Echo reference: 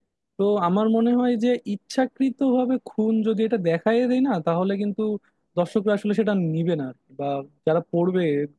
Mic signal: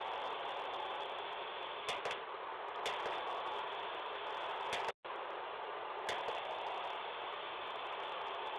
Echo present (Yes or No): No